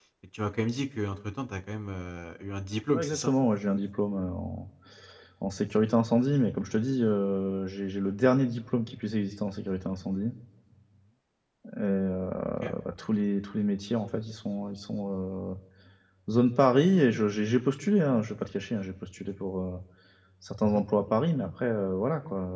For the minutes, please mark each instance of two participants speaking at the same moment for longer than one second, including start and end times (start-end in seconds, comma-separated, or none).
none